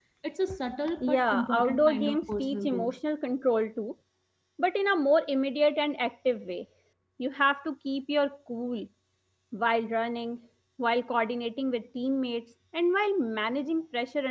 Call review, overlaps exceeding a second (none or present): present